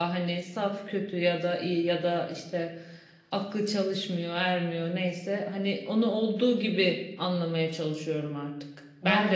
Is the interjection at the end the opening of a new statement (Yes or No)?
No